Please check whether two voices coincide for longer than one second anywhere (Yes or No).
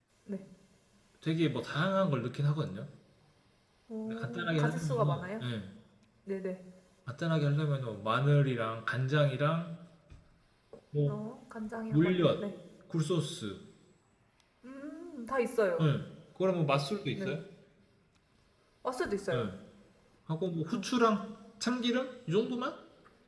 Yes